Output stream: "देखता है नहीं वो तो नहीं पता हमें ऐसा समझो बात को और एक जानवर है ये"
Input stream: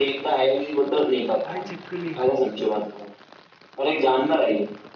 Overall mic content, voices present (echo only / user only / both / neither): both